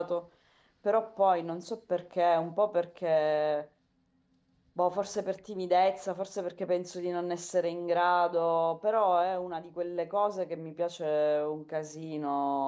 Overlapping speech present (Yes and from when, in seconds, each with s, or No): No